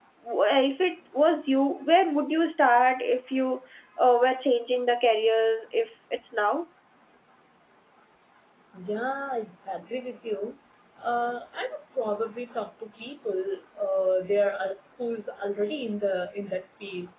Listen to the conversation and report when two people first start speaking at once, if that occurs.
none

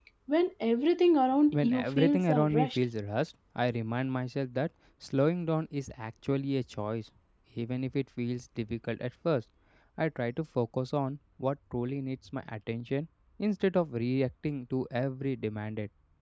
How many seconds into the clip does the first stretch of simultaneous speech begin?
1.5 s

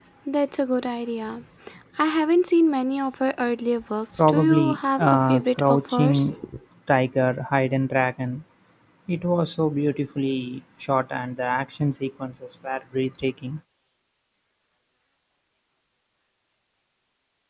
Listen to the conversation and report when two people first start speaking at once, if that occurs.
4.2 s

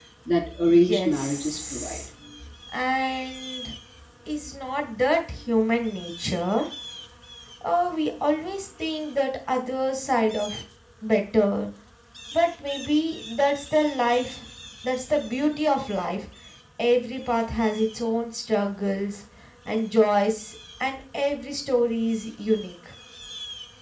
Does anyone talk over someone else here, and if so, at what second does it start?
0.7 s

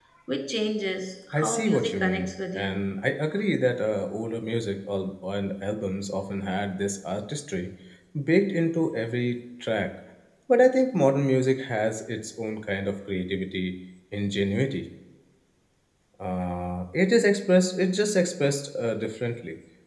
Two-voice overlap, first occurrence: 1.3 s

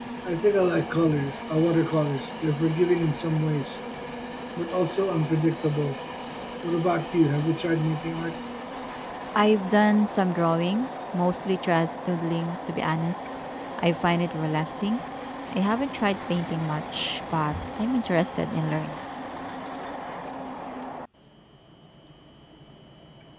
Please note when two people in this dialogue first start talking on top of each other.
none

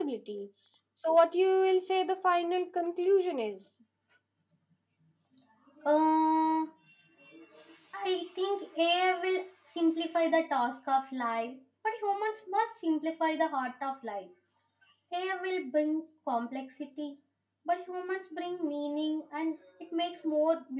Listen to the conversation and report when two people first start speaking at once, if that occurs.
none

